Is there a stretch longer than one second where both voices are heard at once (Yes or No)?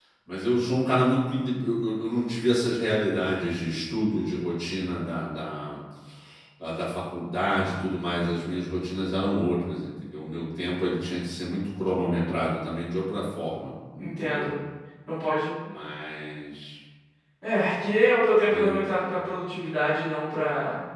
No